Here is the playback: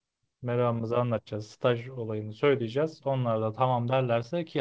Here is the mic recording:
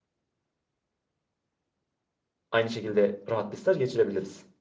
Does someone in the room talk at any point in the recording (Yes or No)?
Yes